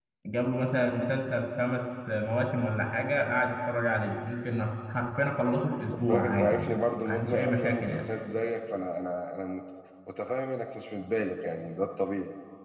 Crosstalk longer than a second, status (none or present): present